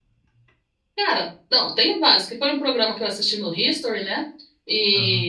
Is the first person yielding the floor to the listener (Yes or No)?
No